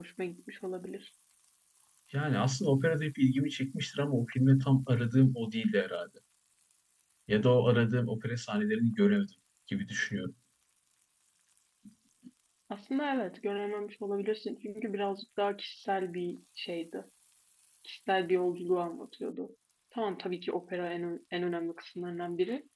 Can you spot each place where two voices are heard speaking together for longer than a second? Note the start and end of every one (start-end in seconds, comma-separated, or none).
none